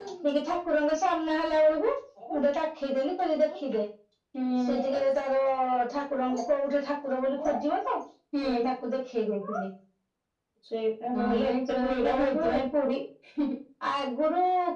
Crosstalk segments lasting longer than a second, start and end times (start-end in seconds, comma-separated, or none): 11.2-12.4